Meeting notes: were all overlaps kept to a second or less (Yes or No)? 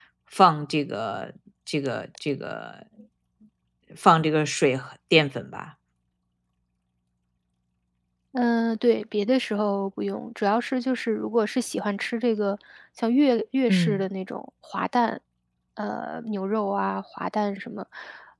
Yes